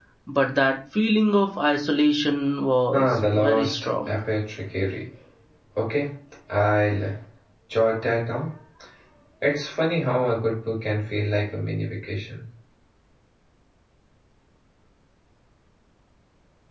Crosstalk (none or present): present